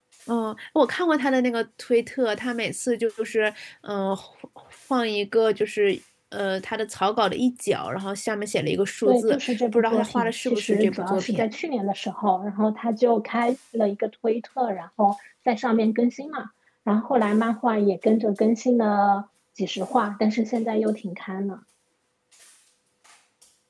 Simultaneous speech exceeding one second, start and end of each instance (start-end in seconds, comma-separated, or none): 9.1-11.4